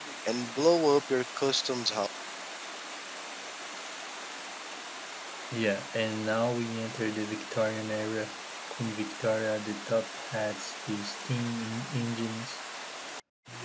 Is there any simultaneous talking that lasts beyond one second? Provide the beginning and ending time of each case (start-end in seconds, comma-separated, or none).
none